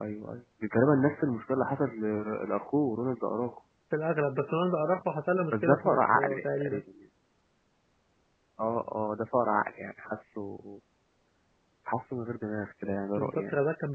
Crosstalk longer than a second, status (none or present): present